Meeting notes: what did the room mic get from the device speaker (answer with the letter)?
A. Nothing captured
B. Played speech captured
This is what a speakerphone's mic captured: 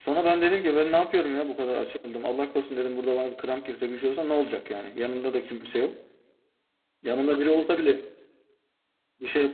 A